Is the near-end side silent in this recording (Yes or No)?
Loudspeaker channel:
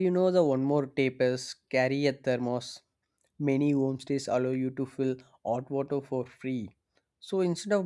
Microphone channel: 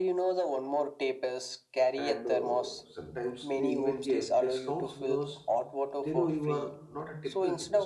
No